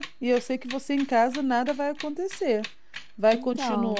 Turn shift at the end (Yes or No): No